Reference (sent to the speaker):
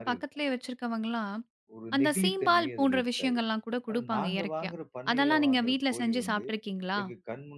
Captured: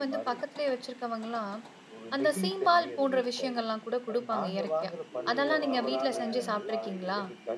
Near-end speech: present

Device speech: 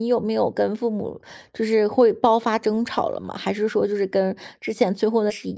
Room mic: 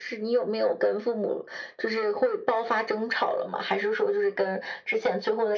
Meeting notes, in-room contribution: none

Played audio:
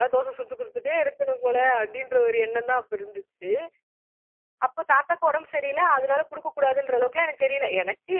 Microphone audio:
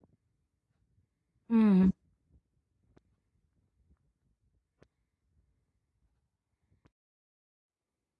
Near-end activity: present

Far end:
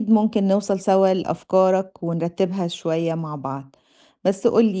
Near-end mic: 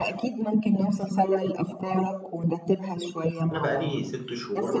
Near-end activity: present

